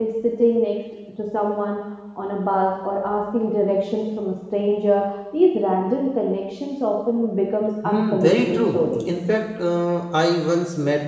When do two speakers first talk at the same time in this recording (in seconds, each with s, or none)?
7.8 s